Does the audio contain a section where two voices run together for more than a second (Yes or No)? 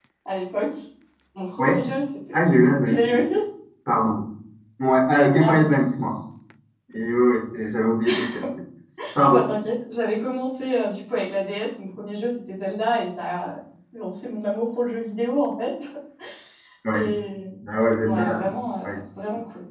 No